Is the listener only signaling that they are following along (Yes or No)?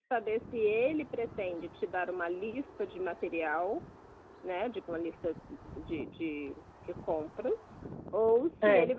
Yes